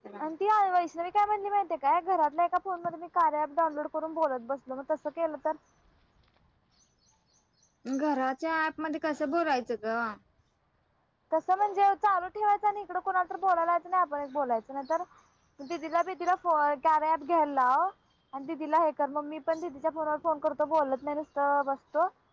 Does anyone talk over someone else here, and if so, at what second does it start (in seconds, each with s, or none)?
none